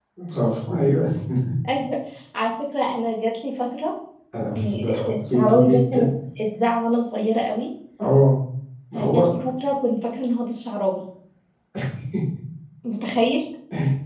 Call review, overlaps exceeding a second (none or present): present